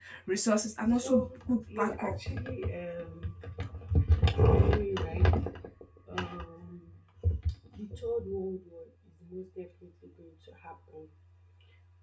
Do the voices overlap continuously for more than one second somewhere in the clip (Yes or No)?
Yes